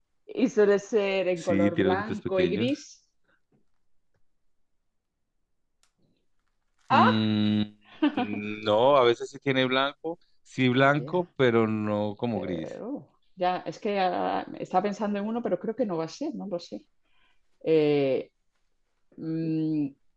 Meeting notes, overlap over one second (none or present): present